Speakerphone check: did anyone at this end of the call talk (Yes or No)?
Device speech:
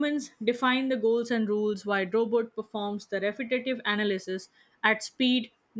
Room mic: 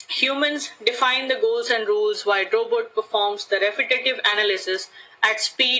No